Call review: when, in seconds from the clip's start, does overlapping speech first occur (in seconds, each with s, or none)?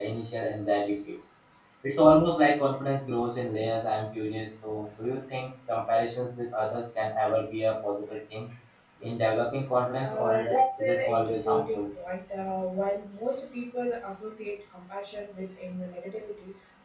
10.0 s